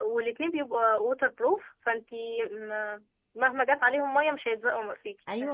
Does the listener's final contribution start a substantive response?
Yes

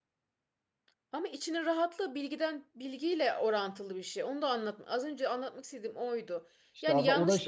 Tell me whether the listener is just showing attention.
No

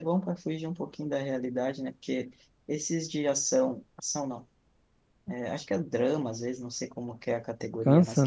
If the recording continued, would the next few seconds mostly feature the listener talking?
No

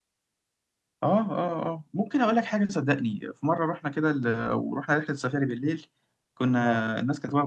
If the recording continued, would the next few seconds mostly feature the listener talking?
No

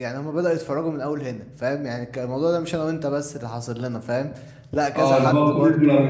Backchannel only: No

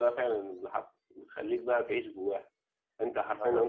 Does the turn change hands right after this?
No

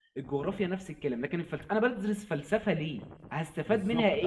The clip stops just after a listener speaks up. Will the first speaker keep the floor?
No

